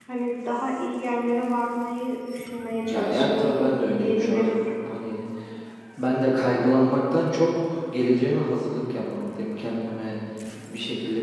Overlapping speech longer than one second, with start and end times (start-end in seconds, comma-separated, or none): 2.9-4.5